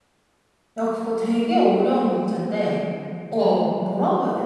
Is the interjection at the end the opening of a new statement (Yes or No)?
No